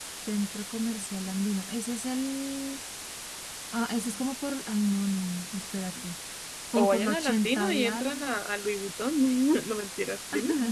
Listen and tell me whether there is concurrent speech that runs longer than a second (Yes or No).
Yes